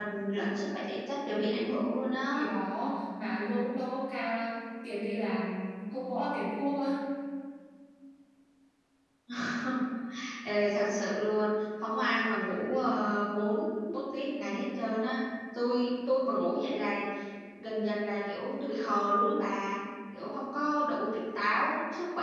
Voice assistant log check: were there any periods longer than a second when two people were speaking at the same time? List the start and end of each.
none

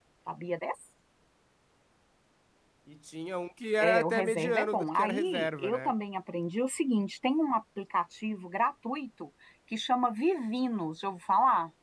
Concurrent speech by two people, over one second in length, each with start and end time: 3.8-5.9

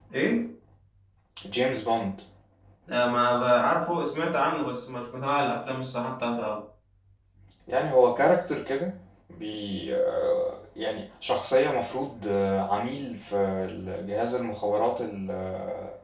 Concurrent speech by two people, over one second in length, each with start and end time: none

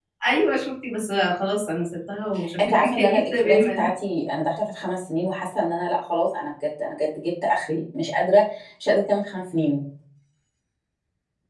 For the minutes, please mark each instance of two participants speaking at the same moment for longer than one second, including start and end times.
2.6-3.9

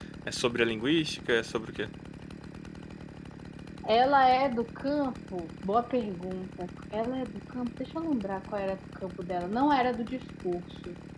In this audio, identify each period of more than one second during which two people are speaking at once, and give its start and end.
none

